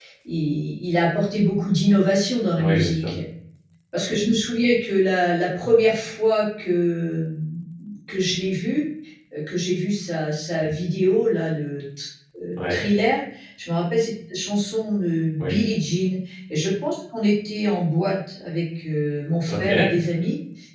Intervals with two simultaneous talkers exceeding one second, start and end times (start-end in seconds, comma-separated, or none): none